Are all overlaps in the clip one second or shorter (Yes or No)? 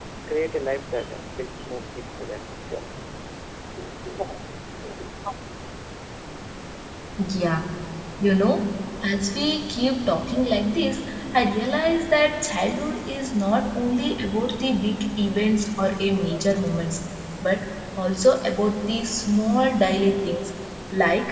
Yes